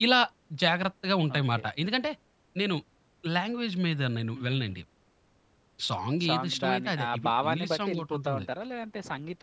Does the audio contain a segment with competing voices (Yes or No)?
Yes